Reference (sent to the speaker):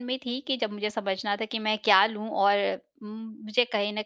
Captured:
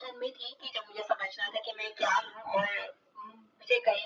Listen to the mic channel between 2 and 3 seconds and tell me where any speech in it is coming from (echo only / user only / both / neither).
echo only